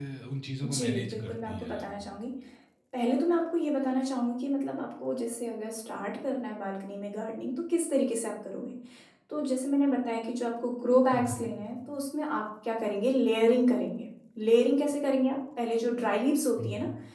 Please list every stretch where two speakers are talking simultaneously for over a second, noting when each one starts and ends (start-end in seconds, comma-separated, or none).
0.6-1.9